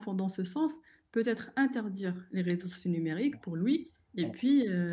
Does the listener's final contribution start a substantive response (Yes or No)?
No